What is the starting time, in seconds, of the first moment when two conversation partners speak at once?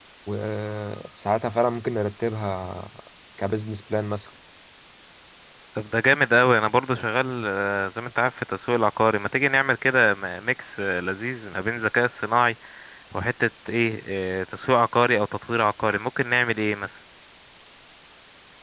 none

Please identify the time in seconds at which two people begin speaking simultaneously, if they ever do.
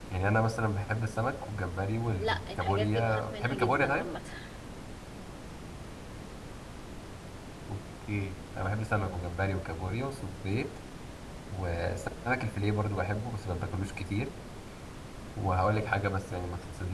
2.2 s

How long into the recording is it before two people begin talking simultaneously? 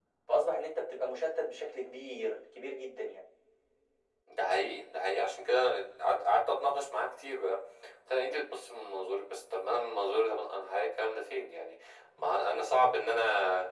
none

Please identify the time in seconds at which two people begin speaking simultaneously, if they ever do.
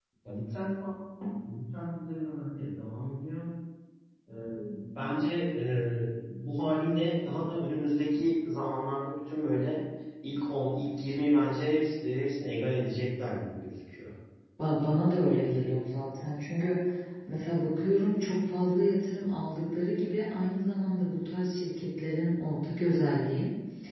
none

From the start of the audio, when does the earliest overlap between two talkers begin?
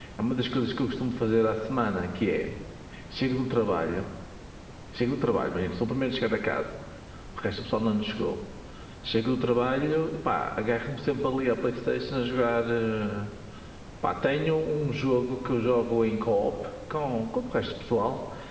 none

